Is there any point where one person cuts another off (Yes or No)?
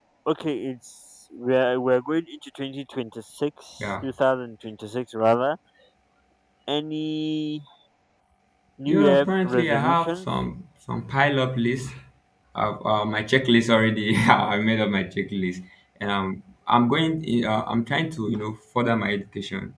Yes